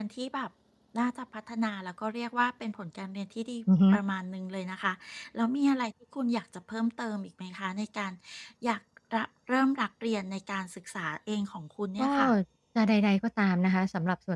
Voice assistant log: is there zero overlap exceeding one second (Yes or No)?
Yes